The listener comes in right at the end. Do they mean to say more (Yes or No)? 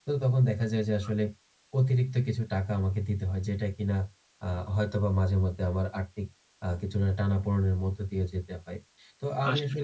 No